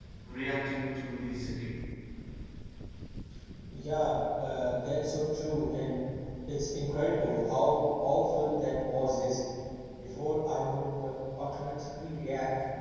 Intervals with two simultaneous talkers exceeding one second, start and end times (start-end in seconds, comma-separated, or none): none